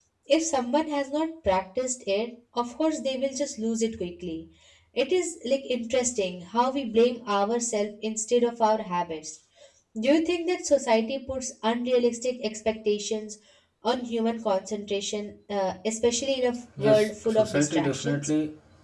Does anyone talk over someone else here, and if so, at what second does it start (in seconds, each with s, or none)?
16.8 s